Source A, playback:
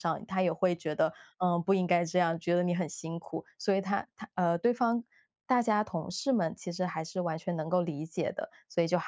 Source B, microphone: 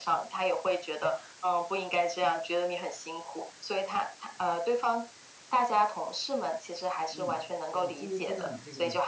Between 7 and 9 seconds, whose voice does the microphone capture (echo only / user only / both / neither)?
both